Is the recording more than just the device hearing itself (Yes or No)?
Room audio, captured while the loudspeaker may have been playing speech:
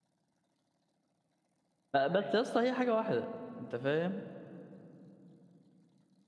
Yes